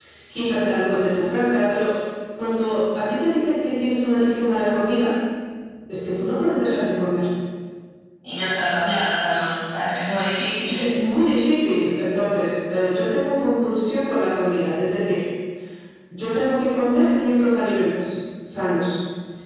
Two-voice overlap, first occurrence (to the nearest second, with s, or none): none